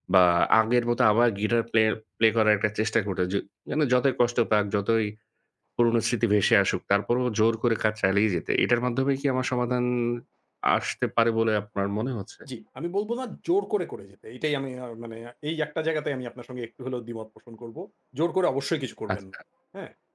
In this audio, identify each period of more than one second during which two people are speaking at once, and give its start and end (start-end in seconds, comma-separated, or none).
none